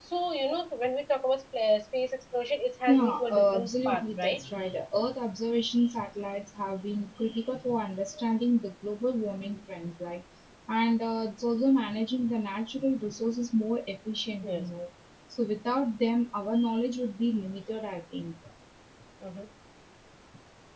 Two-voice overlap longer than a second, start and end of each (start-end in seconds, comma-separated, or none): 2.9-4.4